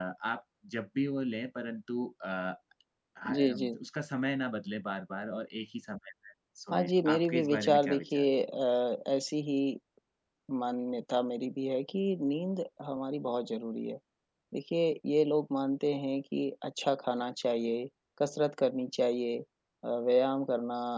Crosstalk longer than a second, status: present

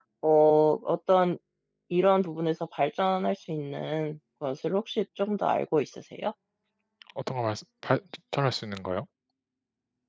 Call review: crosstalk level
none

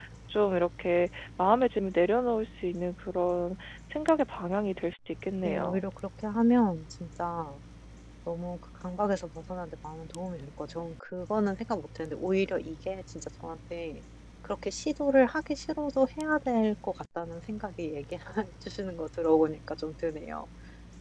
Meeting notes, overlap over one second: none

